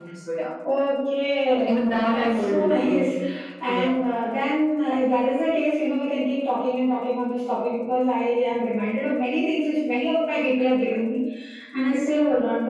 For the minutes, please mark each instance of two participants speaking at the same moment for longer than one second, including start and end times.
1.7-3.0

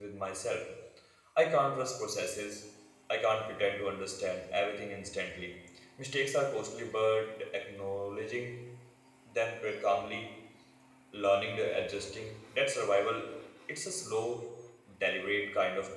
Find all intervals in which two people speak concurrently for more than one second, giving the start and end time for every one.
none

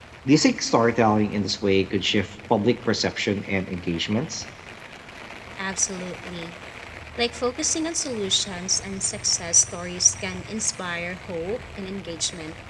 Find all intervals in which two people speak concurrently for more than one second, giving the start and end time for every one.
none

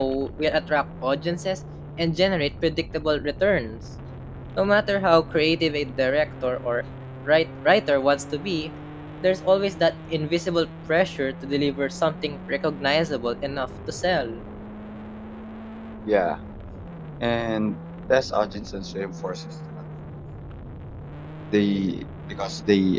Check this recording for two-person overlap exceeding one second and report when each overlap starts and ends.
none

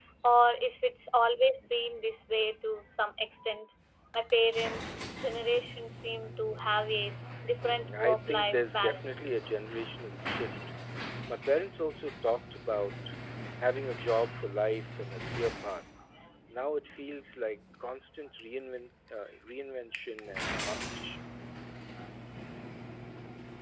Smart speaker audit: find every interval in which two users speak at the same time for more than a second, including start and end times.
7.6-9.1

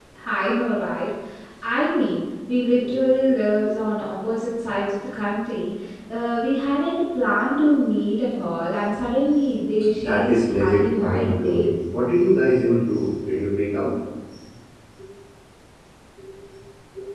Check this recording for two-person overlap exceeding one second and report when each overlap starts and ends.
10.0-11.7

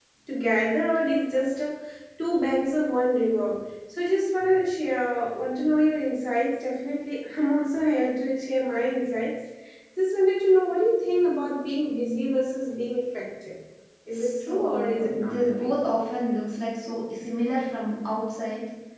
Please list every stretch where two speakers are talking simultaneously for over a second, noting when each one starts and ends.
14.1-15.7

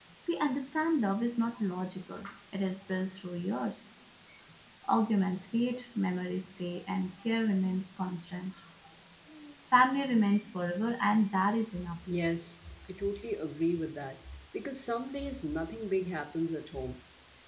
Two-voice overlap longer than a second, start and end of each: none

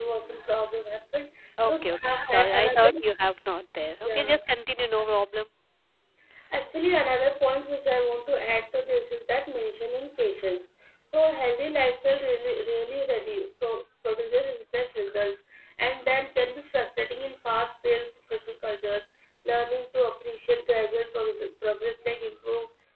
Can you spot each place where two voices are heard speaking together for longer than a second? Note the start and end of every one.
1.7-3.0

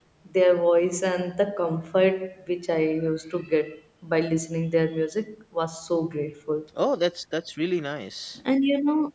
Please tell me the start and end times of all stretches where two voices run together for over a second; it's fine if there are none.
none

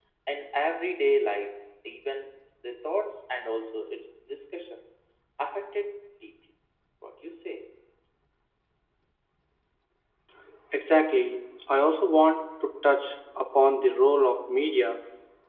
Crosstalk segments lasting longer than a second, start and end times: none

